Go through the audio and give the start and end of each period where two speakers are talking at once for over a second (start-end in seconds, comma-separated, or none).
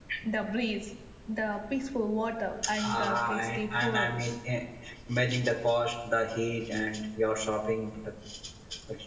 2.8-4.1